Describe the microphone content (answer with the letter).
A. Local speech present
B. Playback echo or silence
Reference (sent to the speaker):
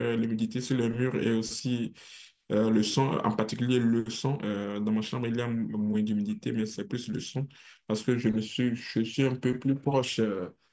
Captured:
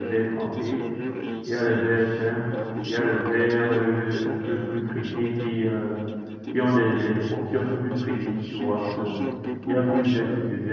A